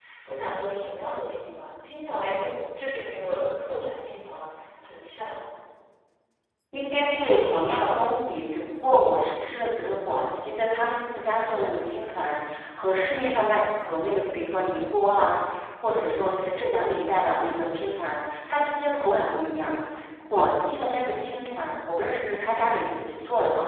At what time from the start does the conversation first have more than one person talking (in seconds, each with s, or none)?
none